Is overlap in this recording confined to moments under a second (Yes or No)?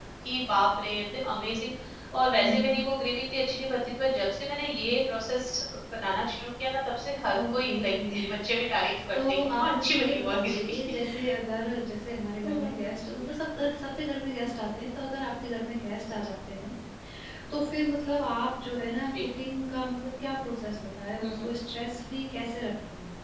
No